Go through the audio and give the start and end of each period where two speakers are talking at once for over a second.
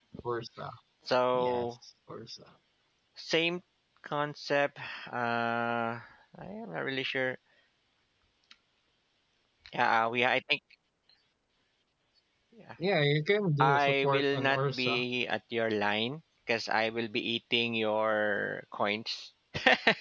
13.6-15.0

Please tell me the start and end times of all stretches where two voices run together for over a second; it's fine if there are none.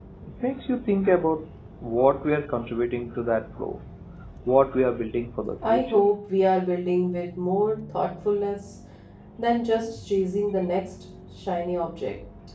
none

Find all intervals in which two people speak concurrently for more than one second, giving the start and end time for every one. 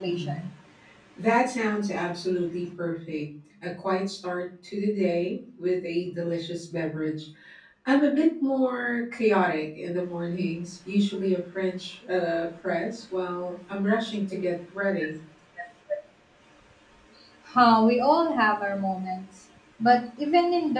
none

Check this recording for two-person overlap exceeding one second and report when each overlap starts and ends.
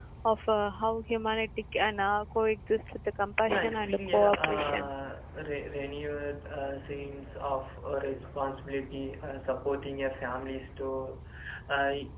3.5-4.9

